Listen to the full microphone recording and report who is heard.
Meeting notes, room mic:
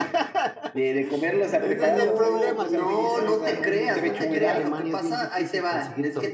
both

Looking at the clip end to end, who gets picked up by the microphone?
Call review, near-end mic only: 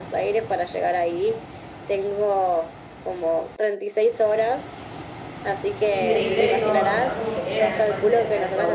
both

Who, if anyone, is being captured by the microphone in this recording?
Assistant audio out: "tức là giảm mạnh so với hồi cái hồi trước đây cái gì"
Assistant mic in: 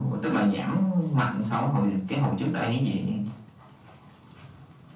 echo only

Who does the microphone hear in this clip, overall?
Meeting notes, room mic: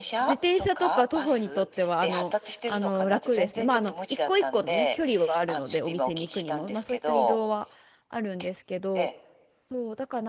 both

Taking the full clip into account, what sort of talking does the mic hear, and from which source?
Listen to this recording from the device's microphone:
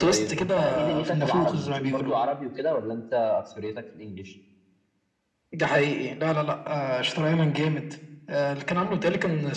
echo only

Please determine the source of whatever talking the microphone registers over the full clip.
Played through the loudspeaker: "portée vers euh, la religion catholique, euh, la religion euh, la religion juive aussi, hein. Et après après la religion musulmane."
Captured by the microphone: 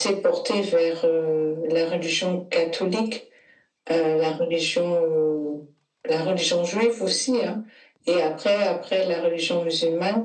echo only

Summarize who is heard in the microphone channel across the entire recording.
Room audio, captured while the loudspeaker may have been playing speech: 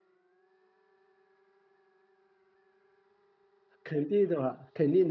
user only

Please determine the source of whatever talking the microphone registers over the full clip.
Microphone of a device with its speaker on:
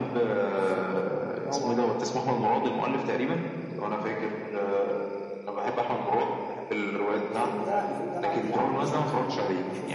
echo only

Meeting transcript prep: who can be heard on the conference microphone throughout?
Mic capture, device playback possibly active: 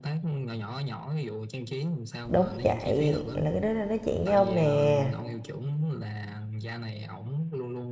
both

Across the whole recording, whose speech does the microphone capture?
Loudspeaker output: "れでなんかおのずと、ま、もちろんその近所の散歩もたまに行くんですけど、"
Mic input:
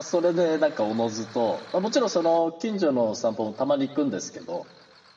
echo only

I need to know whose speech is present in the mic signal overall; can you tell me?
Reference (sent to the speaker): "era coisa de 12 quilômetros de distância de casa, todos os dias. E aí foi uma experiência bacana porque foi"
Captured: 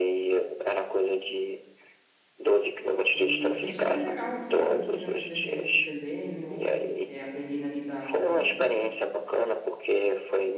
both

